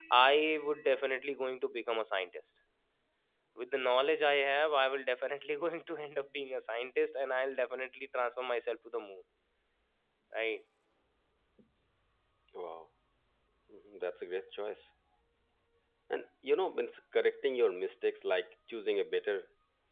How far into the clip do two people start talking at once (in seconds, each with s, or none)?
none